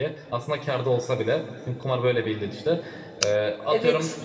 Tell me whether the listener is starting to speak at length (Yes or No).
No